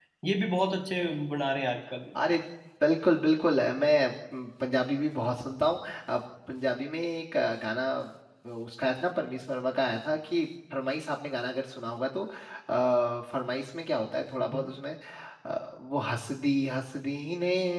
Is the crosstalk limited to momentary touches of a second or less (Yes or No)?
Yes